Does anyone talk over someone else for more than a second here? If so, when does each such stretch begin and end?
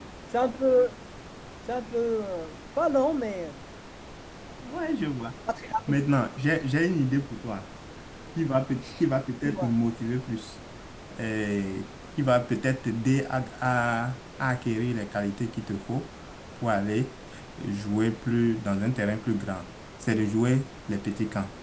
none

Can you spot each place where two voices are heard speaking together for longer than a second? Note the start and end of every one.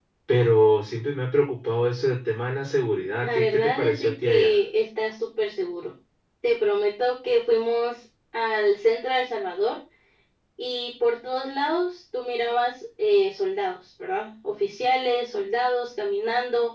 3.2-4.6

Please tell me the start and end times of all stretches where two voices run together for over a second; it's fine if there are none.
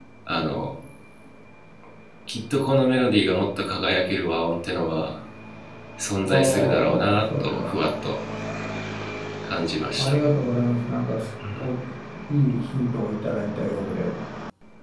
6.3-7.8

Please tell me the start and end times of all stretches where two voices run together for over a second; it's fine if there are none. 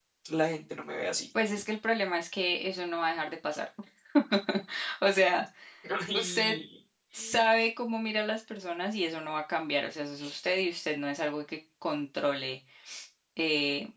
none

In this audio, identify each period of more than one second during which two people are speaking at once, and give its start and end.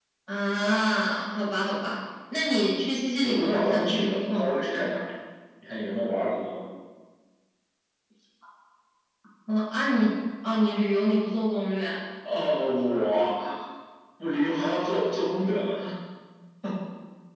3.2-4.9

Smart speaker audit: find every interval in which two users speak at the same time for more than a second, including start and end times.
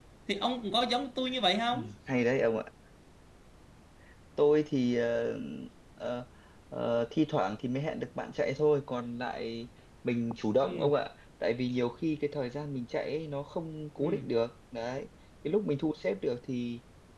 none

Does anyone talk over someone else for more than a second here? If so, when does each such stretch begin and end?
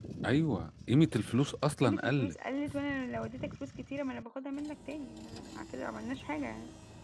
none

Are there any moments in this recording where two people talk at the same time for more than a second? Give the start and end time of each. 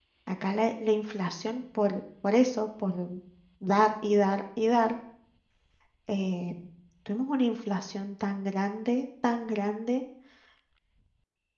none

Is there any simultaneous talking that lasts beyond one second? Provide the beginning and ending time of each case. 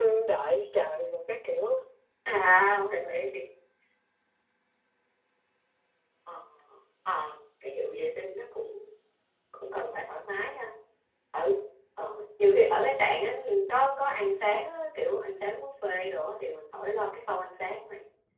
none

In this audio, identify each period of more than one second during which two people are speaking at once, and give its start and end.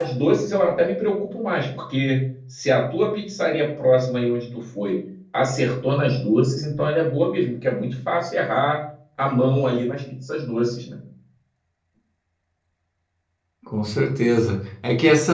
none

